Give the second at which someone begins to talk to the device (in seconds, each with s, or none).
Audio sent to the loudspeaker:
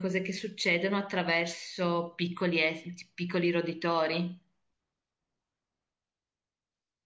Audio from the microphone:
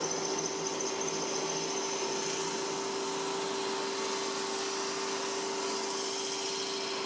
none